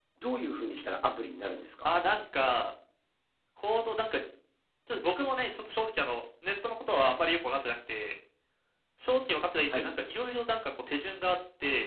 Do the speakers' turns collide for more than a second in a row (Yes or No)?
No